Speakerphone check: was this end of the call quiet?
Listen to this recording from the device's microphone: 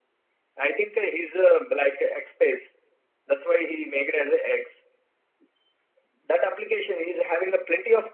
Yes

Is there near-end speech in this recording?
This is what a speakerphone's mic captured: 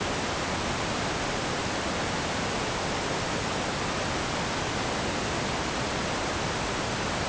No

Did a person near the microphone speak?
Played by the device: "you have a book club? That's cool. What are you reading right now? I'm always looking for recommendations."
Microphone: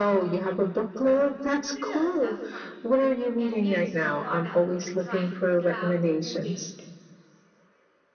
Yes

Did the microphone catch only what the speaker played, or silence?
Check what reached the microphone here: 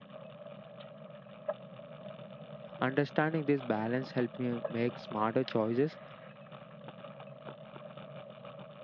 No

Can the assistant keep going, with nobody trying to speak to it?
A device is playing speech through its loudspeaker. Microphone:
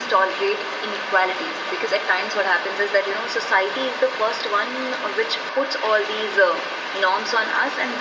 Yes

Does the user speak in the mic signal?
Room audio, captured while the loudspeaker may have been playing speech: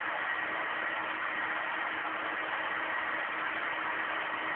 No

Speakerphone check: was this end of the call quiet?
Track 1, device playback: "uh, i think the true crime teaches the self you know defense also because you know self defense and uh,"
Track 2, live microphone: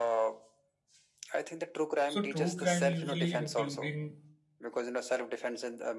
No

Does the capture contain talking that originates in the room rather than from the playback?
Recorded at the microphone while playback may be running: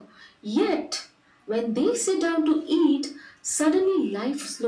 No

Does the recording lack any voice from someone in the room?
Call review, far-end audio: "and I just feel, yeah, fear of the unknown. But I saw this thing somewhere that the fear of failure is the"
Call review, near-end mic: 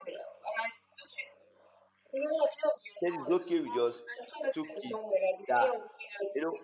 No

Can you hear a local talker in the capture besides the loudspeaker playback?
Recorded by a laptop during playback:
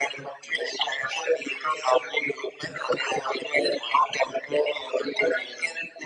No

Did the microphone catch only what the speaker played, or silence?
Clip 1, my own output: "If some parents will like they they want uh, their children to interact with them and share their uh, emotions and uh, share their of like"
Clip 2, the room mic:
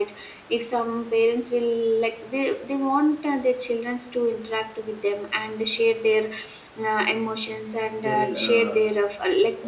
No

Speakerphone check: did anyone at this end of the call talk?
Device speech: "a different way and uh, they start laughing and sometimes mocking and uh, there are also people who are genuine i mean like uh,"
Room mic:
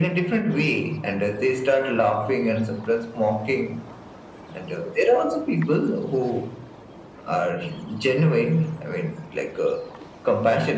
No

